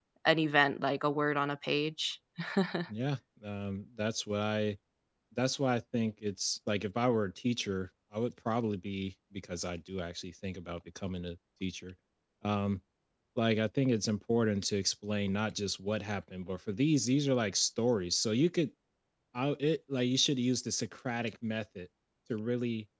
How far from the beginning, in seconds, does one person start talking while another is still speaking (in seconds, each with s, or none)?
none